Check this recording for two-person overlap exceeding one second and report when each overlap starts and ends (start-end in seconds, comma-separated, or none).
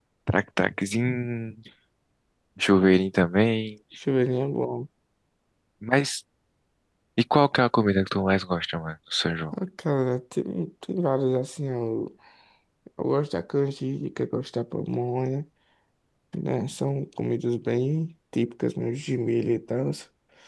none